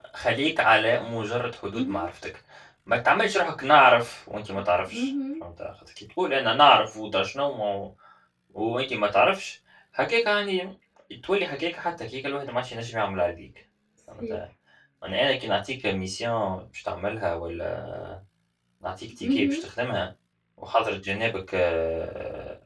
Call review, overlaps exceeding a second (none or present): none